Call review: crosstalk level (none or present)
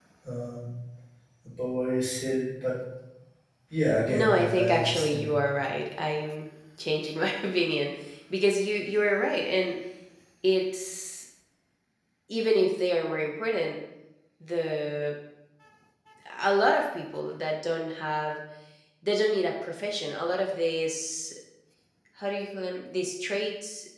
present